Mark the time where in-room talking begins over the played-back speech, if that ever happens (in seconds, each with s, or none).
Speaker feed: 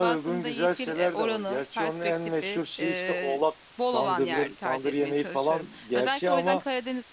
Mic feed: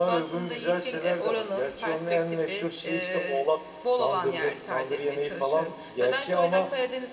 none